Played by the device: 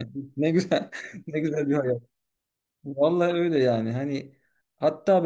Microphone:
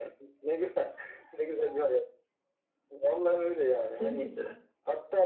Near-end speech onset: 4.0 s

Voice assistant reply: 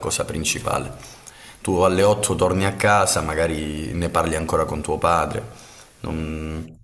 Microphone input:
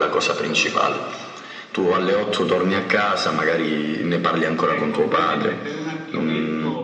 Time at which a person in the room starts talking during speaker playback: 4.6 s

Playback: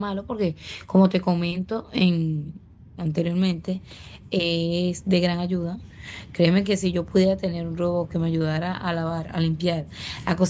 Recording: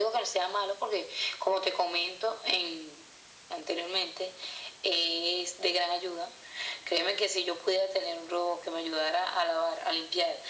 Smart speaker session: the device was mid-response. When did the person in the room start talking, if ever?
none

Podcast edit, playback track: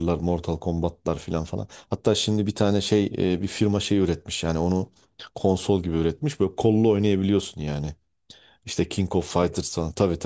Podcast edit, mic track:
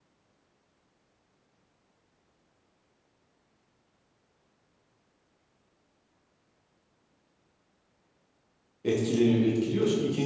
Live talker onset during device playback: 8.8 s

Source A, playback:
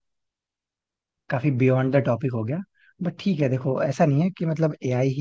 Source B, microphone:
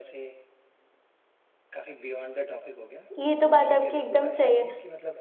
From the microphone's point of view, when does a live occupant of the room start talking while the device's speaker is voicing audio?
3.2 s

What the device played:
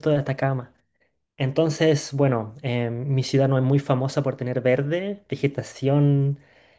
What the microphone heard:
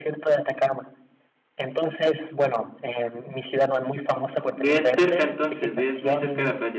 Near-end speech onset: 4.5 s

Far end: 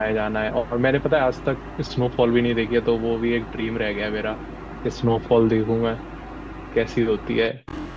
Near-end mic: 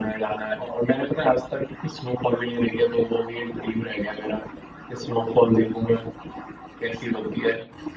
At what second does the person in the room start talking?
none

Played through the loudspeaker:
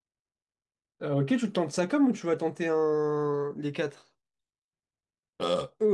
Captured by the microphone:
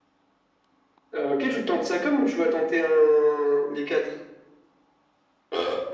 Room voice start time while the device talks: none

